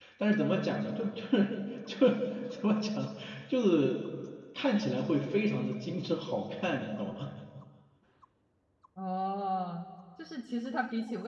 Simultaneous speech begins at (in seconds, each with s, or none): none